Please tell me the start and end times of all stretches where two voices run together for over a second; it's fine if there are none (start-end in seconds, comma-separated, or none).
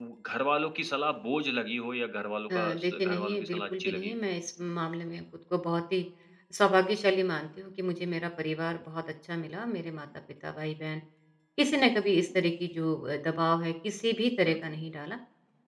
2.5-4.1